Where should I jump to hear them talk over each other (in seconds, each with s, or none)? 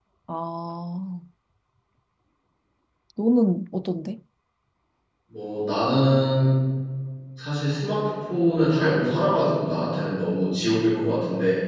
none